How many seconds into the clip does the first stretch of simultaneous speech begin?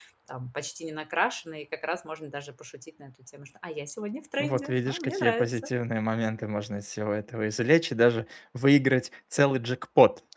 4.4 s

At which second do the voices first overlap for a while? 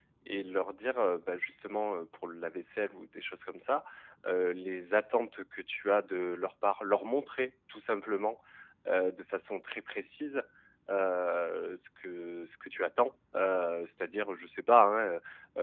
none

